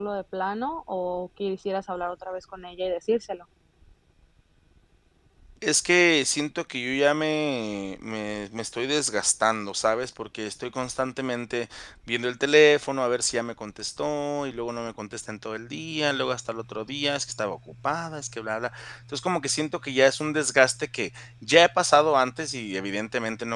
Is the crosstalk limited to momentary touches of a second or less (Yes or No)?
Yes